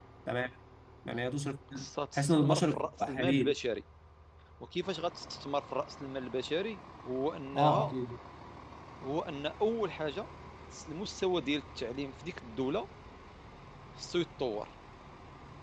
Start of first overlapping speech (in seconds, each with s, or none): 2.2 s